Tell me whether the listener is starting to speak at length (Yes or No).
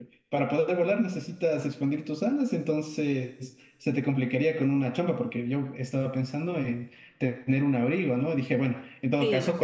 No